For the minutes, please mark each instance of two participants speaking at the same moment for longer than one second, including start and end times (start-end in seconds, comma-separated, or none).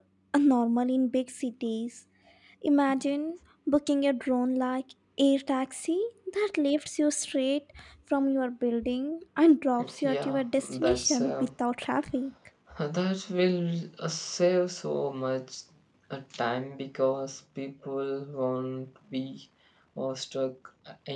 10.0-11.3